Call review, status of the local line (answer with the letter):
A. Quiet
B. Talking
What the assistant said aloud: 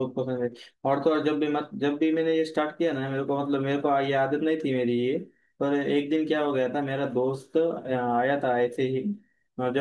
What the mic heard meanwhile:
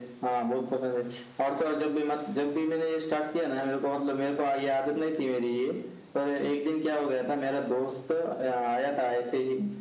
A